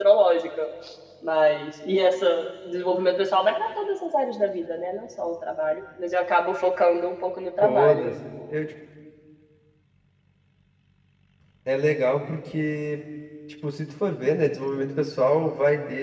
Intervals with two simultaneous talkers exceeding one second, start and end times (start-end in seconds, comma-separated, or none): none